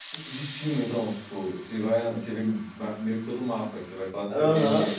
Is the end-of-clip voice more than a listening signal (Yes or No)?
Yes